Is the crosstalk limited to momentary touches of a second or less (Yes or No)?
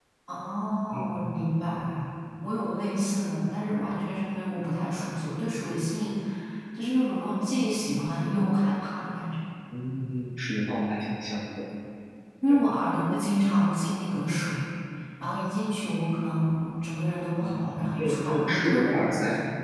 No